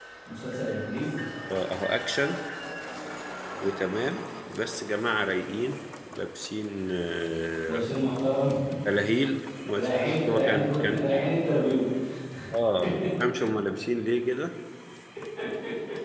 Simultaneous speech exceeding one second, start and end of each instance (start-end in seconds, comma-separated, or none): 9.8-11.1